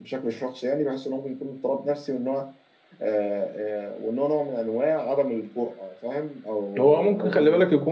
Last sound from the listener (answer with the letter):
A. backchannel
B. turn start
B